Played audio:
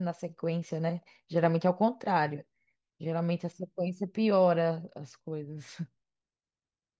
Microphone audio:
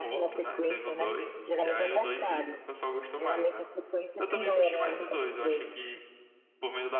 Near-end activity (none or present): present